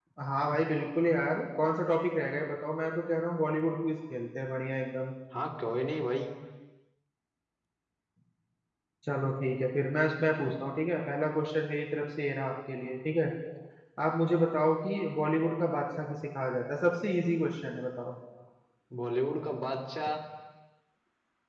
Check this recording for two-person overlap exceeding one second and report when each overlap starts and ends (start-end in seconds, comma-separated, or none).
none